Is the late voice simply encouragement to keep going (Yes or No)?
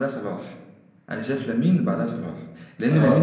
Yes